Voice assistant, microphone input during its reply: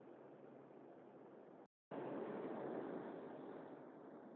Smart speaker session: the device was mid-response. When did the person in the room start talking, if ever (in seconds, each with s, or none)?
none